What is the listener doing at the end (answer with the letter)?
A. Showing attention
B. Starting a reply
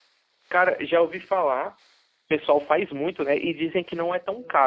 B